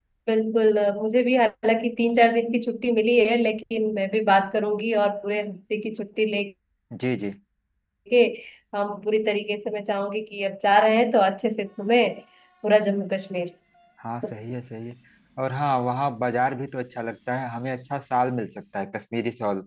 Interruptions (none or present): none